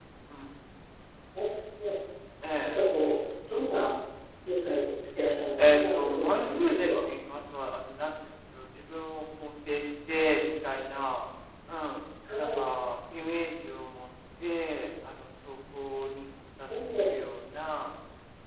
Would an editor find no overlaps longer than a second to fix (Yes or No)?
No